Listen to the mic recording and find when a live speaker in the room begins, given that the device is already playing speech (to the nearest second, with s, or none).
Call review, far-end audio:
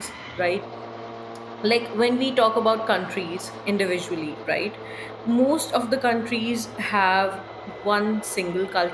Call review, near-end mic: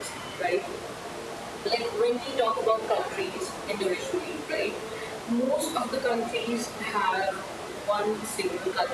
none